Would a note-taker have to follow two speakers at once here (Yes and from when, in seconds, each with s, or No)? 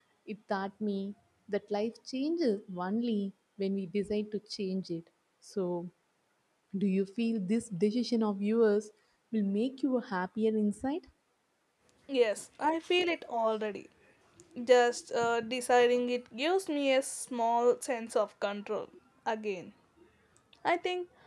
No